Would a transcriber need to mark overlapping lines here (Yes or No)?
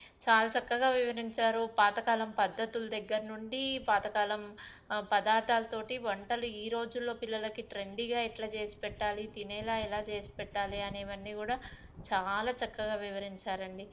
No